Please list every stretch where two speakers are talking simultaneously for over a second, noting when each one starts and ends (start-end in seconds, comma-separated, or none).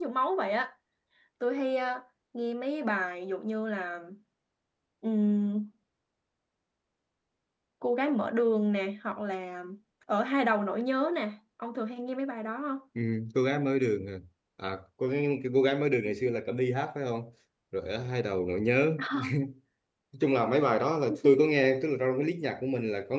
none